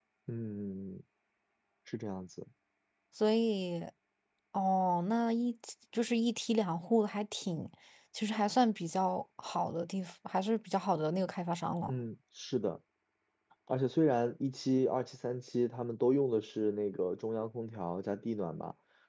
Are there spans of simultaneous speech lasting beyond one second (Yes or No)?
No